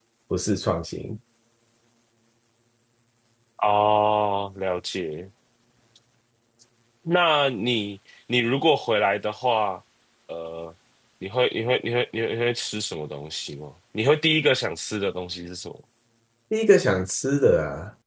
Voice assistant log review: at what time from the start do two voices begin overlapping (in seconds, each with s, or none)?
none